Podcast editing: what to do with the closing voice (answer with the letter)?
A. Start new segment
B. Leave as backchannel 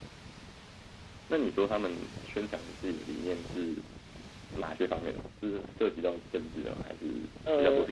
A